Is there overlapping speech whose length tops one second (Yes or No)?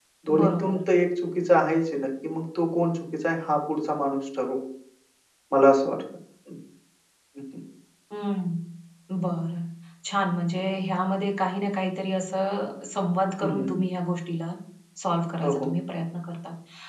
No